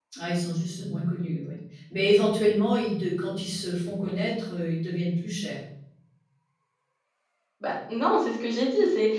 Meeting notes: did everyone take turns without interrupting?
Yes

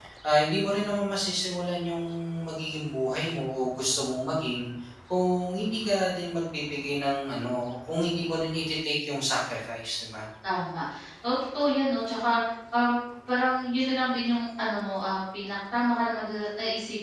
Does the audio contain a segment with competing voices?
No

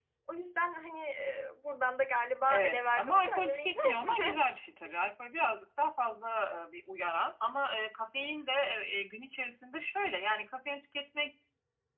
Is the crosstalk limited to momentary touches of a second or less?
No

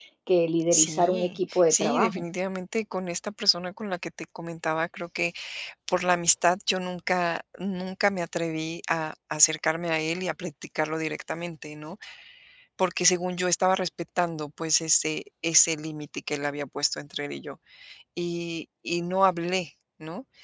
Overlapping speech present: Yes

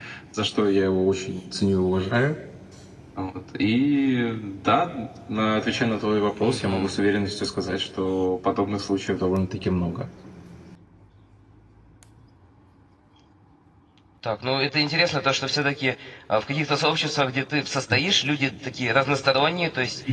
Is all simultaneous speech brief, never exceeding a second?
Yes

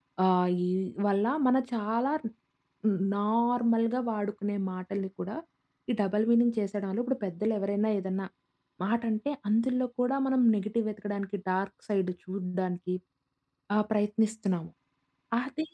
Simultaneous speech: No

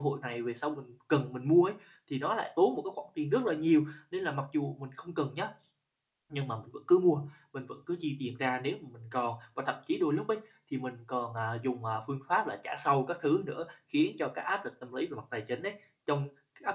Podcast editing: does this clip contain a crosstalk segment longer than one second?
No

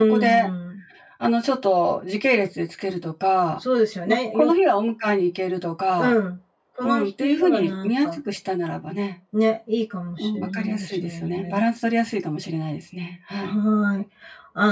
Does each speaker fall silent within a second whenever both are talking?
No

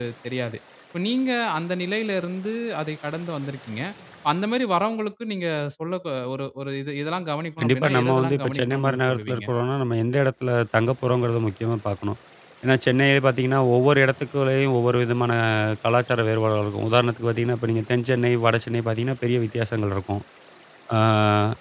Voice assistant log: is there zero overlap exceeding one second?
No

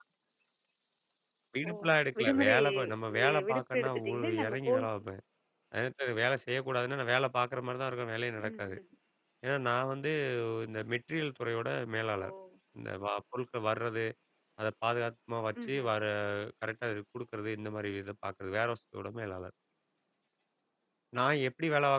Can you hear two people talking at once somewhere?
Yes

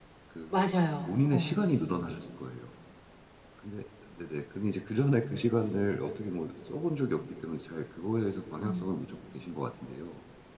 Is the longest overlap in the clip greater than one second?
No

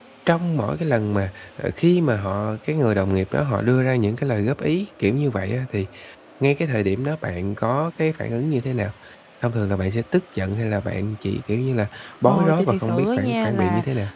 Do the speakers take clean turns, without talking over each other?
No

